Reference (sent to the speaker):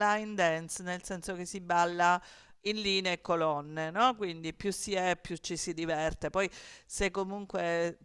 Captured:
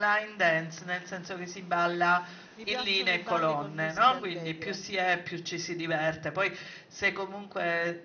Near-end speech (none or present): present